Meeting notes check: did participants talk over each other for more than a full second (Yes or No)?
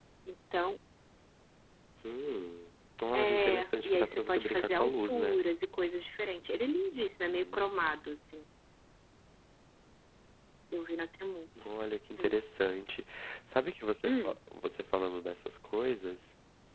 Yes